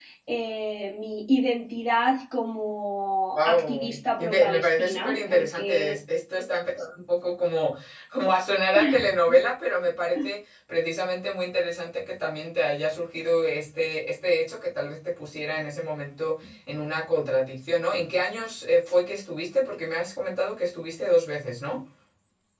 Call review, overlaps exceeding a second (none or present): present